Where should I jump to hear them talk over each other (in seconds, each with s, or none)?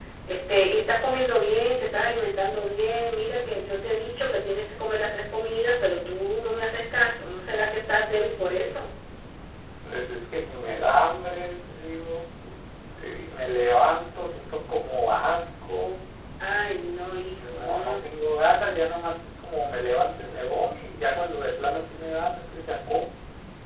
16.6 s